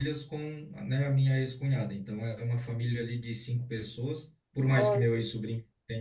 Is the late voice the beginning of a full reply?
No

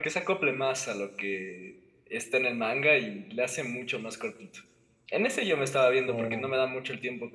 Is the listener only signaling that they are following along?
Yes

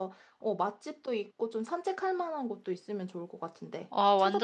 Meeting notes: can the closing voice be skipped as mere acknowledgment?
No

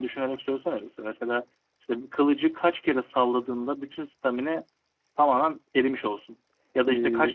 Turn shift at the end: No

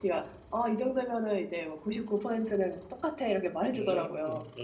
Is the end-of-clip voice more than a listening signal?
Yes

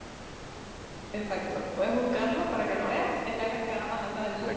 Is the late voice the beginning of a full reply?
Yes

